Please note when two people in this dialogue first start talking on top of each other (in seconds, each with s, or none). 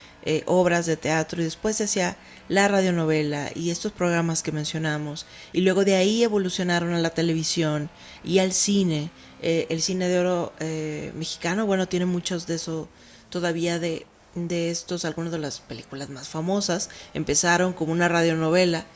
none